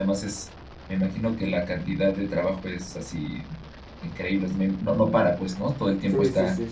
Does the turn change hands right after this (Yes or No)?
Yes